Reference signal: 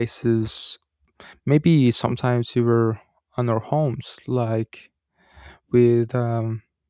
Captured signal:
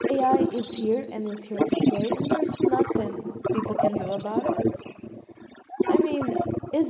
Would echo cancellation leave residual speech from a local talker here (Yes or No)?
Yes